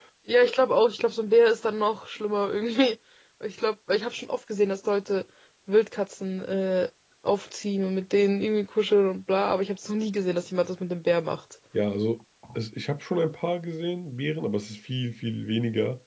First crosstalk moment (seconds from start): none

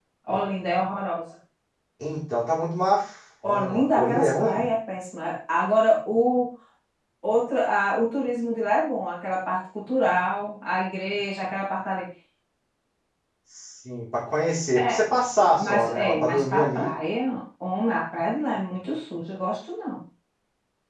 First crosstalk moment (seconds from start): 3.4 s

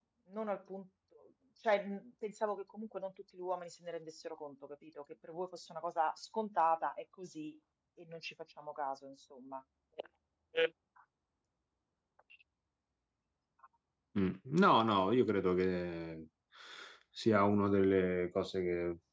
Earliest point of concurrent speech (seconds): none

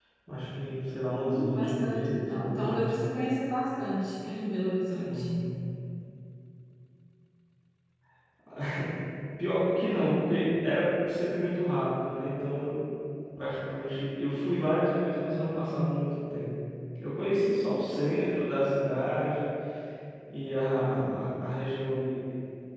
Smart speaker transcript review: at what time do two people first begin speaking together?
1.2 s

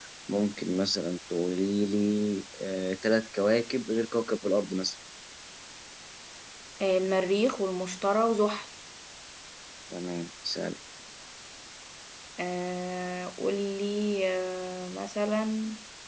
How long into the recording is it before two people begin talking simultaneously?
none

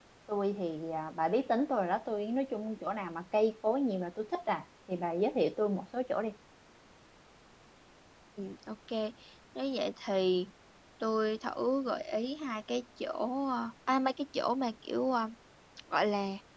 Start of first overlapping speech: none

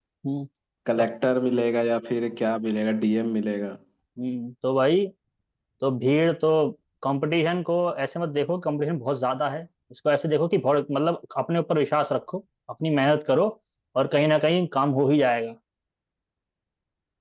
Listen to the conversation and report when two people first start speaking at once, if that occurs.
none

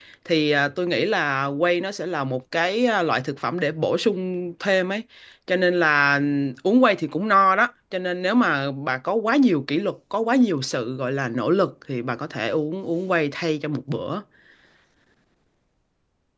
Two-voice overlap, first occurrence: none

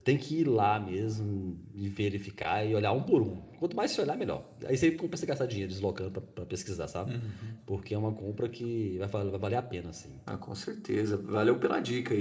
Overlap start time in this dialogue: none

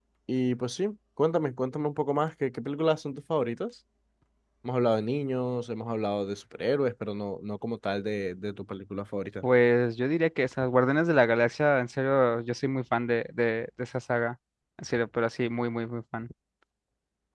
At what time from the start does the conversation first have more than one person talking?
none

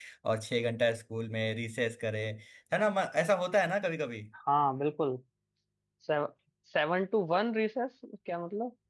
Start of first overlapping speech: none

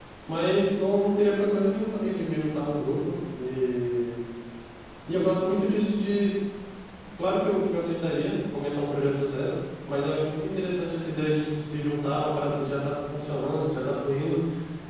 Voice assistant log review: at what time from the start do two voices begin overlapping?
none

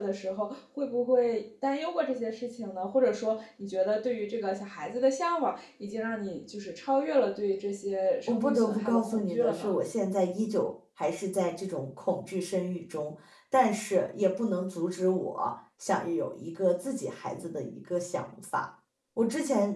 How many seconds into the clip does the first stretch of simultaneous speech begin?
8.3 s

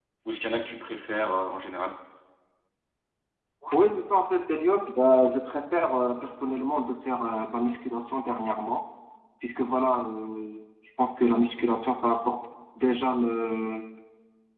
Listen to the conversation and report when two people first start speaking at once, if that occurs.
none

